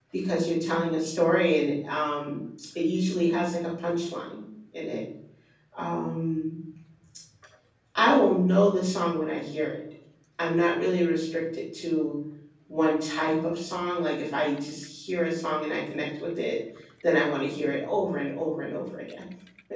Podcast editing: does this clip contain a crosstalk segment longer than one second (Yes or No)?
No